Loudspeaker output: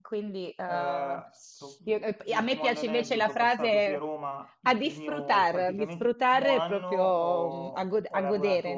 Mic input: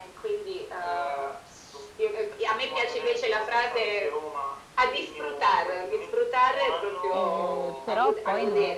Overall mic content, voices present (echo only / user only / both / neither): both